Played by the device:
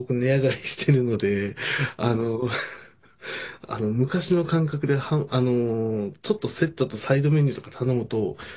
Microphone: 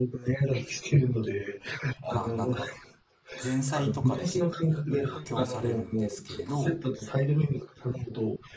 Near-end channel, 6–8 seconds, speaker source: both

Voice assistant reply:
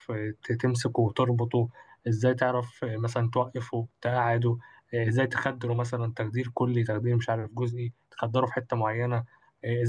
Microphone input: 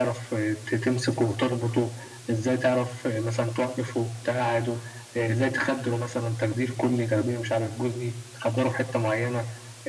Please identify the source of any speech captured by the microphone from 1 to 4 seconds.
echo only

